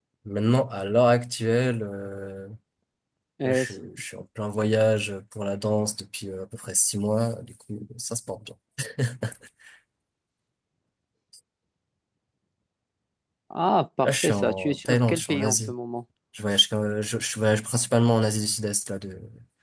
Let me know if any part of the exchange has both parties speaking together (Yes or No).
Yes